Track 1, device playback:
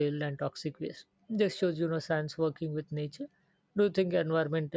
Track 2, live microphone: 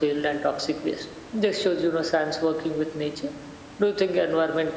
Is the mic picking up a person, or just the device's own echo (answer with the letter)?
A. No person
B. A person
A